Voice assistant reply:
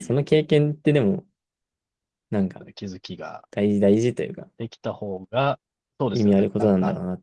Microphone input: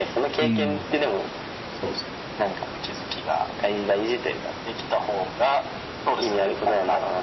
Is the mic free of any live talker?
No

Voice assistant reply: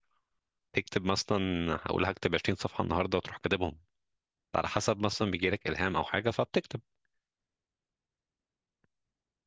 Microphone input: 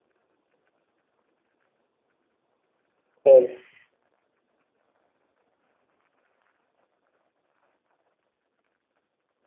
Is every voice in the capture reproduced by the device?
No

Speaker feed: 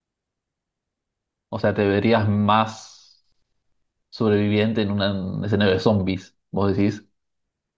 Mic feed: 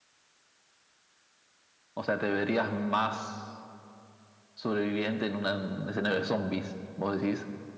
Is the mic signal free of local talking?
Yes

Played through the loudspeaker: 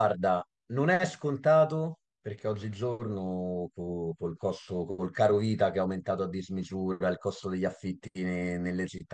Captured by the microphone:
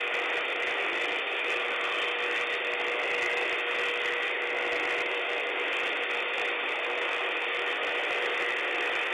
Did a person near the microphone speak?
No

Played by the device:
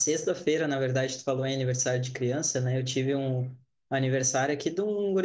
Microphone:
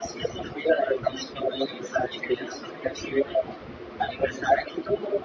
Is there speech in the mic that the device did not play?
No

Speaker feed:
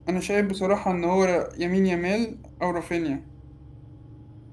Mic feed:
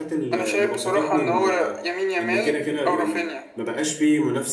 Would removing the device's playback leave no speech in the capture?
No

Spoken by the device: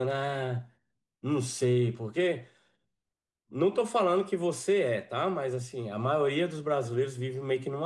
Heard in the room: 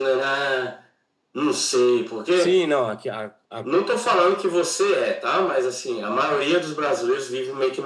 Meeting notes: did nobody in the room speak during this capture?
No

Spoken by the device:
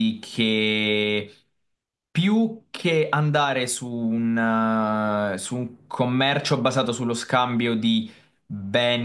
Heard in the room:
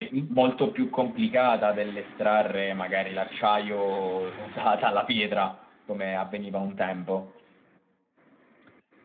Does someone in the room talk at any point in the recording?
Yes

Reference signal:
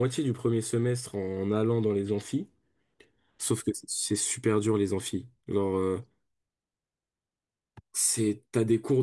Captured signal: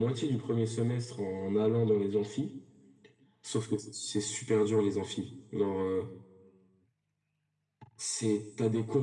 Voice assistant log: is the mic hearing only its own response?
Yes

